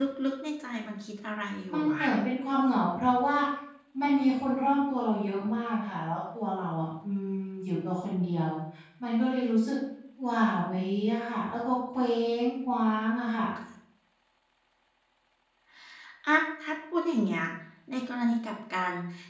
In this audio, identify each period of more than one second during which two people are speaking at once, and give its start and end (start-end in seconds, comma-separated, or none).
none